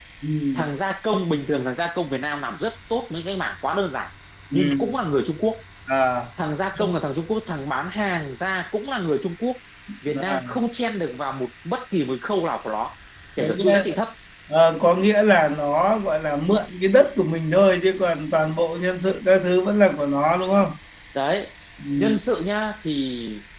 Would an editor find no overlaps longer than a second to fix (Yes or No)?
Yes